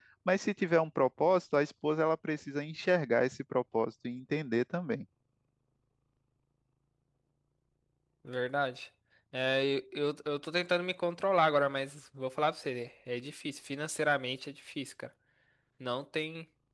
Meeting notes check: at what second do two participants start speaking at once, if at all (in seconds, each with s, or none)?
none